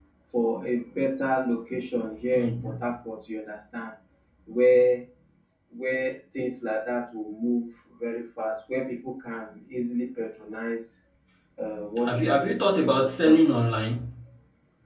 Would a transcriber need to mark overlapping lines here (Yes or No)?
Yes